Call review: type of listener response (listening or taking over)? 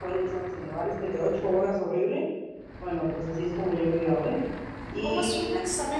taking over